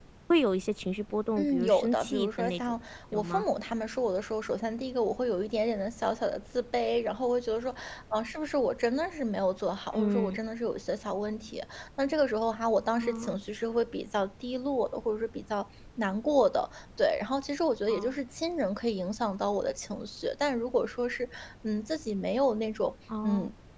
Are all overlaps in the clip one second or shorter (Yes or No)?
No